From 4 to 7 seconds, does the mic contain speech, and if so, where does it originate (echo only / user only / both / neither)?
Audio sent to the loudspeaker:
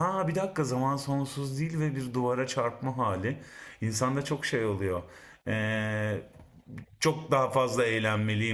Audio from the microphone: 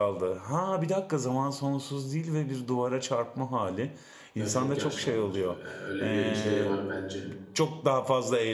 both